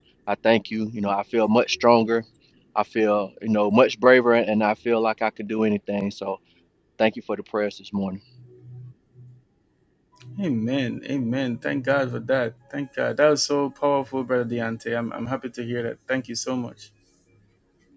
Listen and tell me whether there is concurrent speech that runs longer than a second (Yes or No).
No